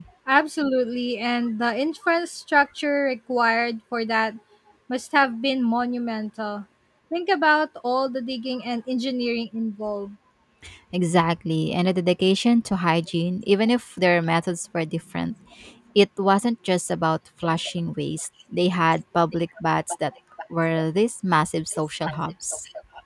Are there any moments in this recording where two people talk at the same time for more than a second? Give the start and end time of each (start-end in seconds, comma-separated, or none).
none